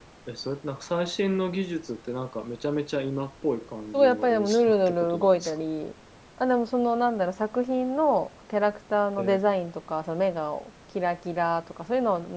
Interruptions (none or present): present